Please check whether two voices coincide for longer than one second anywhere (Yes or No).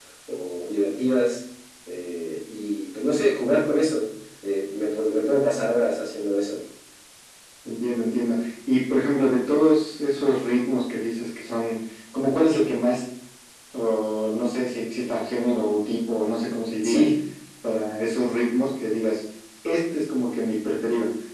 No